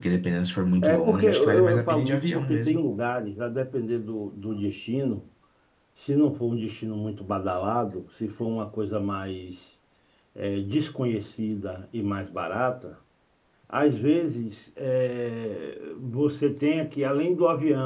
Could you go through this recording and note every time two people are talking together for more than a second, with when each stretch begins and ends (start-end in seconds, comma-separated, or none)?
0.8-2.8